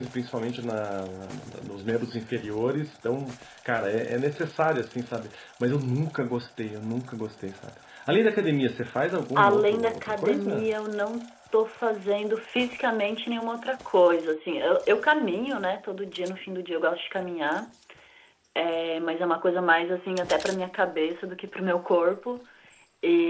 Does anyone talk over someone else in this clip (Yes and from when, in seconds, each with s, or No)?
Yes, from 9.4 s